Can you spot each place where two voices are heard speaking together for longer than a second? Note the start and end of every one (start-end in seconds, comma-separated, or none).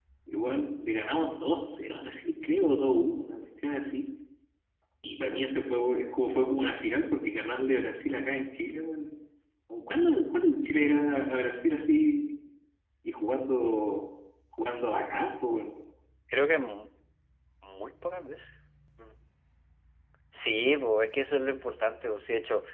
none